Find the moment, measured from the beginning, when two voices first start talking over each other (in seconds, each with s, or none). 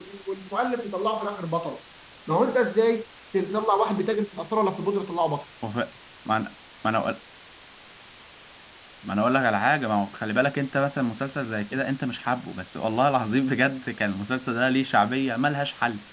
none